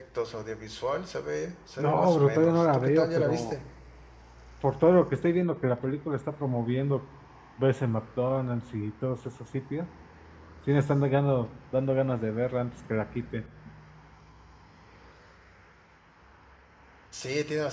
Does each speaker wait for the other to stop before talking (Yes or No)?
No